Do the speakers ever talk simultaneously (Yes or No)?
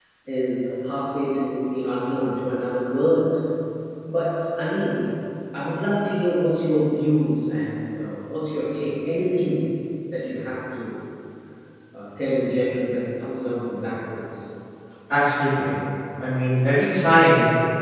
No